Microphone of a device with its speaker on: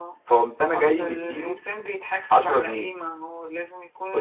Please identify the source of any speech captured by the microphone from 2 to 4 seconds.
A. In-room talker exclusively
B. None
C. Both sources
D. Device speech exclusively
D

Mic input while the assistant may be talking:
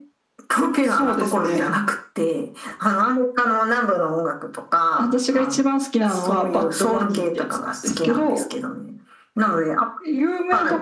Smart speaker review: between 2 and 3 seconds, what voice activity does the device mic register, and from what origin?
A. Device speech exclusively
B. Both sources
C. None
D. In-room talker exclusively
A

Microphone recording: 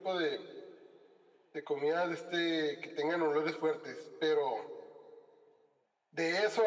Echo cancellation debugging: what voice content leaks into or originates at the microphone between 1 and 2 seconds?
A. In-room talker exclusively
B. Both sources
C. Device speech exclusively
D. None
C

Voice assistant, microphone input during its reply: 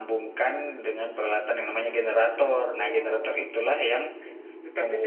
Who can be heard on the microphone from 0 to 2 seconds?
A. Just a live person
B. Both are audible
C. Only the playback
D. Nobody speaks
C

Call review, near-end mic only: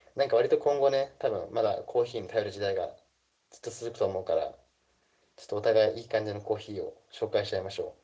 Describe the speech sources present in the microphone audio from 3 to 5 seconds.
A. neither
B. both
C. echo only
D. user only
D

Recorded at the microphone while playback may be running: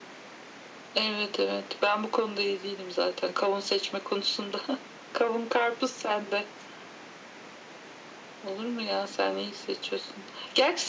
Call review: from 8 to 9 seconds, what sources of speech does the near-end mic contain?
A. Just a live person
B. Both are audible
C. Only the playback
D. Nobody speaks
C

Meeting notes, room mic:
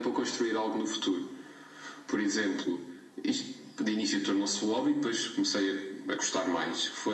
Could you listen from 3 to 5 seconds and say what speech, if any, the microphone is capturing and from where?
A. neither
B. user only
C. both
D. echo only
D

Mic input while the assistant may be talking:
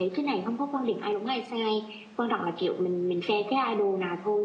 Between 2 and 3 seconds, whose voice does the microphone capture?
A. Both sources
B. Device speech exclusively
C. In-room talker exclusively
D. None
C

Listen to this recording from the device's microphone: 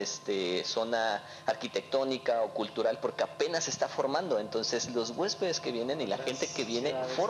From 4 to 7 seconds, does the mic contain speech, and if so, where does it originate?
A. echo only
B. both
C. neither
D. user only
B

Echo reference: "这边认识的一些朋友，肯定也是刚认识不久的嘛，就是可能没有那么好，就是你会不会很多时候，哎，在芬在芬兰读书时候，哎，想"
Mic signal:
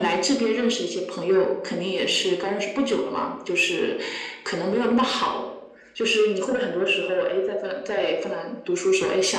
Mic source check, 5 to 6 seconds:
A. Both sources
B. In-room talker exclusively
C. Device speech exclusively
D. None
C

